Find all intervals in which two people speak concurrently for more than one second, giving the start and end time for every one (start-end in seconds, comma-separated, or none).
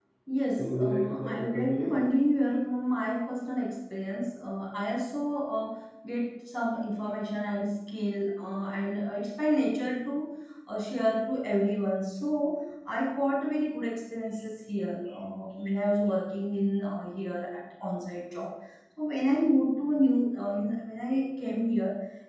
0.6-2.0